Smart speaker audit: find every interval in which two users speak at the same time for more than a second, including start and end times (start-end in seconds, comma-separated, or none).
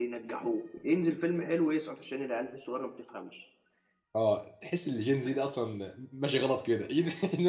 none